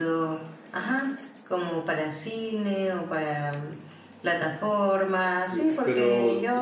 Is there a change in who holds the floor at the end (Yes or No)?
Yes